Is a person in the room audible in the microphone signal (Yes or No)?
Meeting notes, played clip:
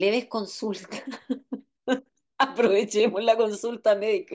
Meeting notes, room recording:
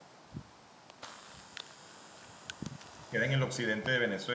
Yes